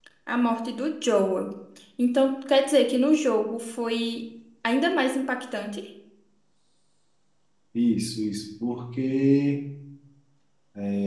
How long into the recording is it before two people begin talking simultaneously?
none

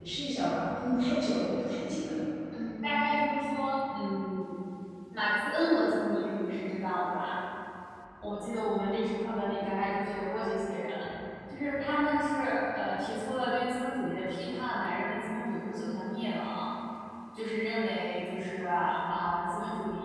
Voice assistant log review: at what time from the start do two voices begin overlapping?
none

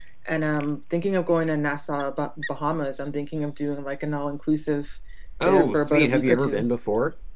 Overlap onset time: 5.4 s

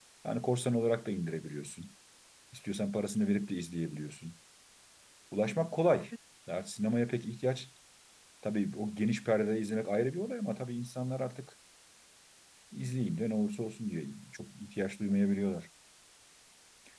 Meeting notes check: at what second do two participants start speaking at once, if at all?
none

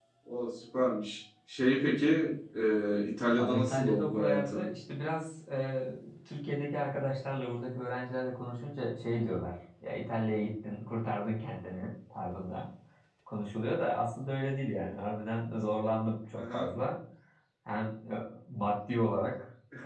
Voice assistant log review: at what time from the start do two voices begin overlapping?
3.3 s

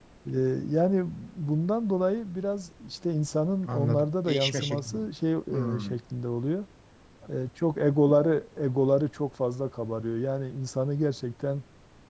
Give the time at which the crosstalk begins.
3.7 s

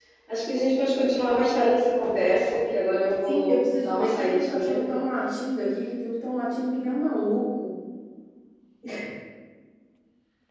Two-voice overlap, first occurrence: 3.2 s

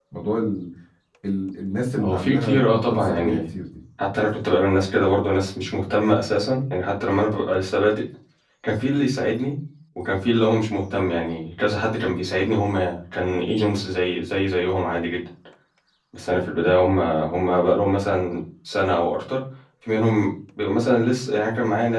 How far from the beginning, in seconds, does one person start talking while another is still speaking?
2.0 s

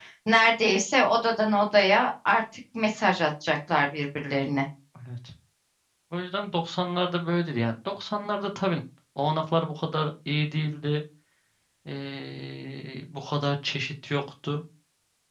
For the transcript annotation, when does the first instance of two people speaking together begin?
none

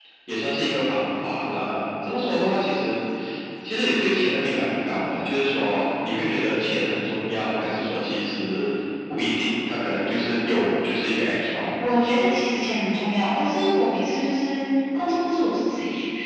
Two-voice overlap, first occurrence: none

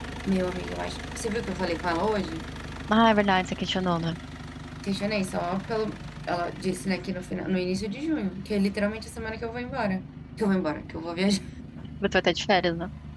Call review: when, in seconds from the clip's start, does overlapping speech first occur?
none

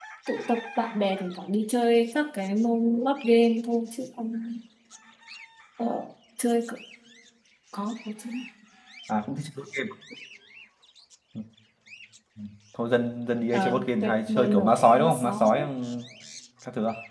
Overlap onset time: 13.5 s

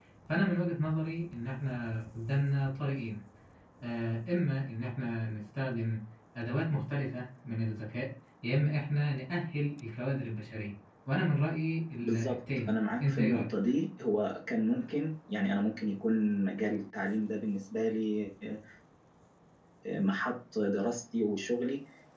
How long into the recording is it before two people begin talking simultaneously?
12.0 s

